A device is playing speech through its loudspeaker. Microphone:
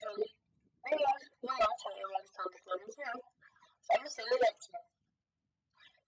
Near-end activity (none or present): none